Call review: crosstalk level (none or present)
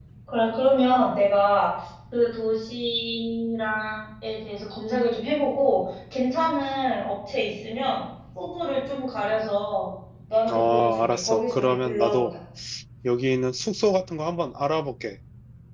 present